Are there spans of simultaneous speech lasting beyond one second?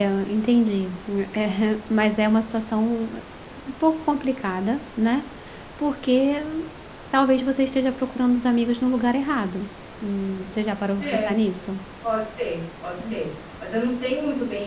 No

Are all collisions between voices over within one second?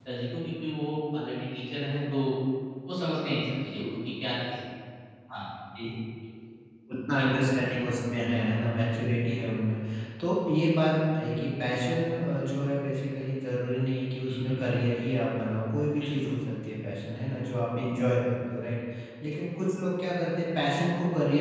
Yes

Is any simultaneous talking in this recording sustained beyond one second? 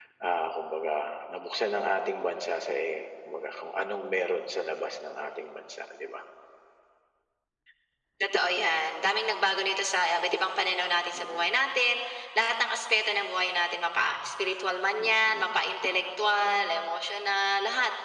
No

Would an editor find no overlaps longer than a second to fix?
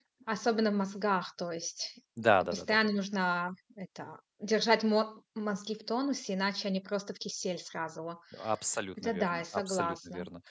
No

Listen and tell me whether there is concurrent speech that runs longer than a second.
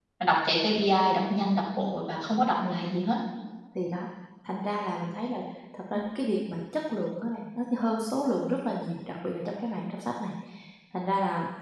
No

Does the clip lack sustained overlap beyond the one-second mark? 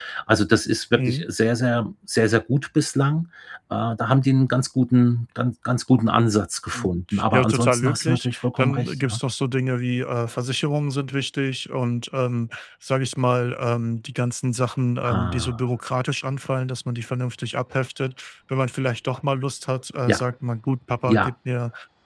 No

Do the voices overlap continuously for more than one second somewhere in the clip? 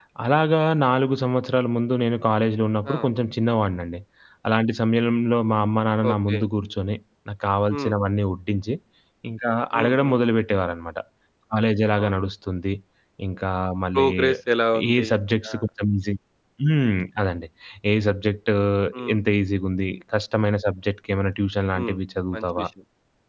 No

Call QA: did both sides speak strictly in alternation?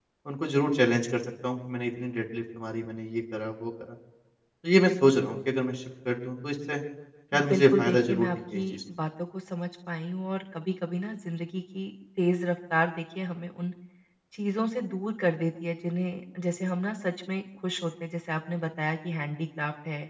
No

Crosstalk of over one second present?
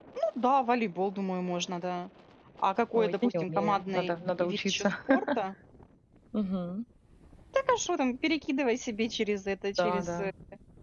Yes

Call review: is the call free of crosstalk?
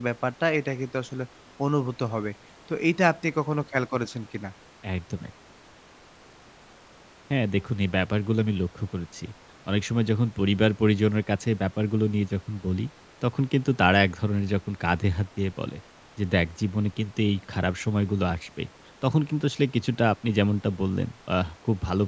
Yes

